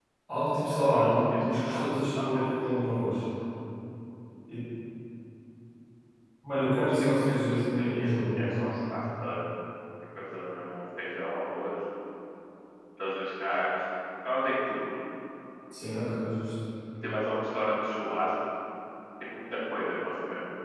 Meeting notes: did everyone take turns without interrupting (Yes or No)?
No